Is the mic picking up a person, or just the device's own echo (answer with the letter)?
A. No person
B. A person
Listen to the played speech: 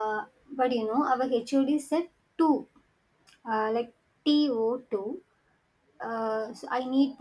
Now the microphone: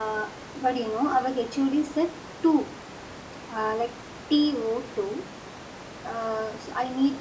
A